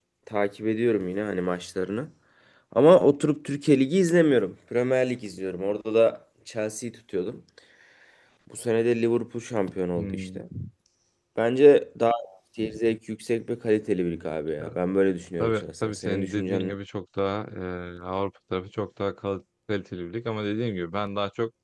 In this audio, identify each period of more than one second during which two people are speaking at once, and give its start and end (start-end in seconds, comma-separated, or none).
15.4-16.8